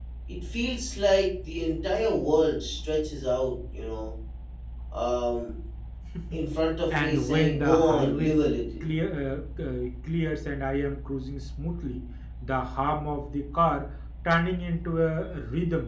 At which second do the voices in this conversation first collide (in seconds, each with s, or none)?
6.9 s